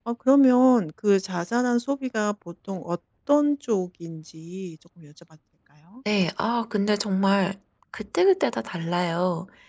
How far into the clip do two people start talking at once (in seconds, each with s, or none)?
none